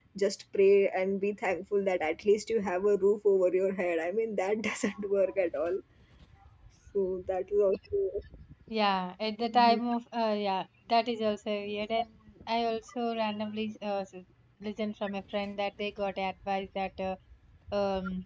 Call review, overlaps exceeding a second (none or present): none